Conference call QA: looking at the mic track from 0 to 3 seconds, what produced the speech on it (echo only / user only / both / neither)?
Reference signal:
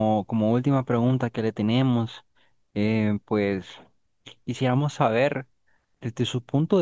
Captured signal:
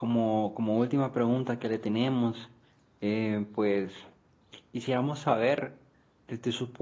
echo only